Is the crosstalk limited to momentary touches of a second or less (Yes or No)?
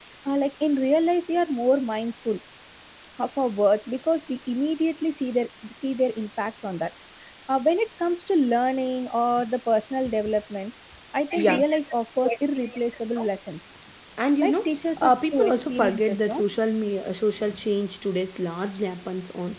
No